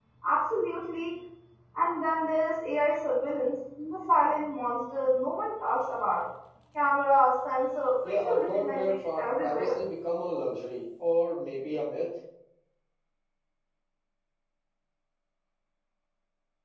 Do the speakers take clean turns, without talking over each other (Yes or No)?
No